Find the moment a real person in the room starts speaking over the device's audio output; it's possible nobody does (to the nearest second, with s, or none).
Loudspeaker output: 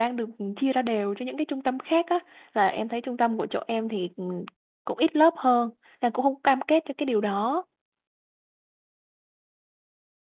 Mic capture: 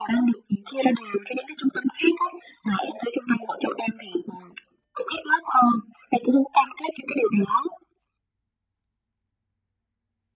none